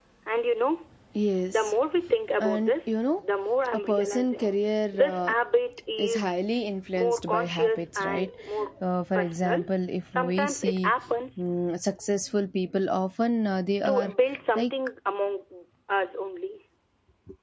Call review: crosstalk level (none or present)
present